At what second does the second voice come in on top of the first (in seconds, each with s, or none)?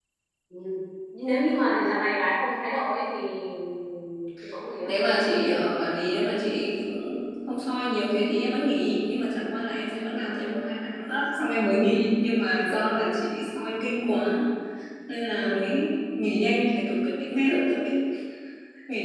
none